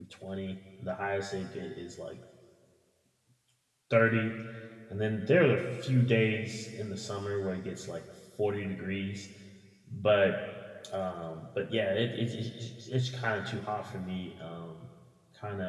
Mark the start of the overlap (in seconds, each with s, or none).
none